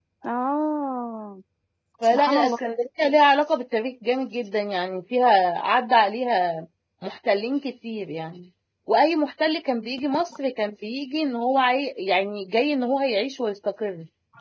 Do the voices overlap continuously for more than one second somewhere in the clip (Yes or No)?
No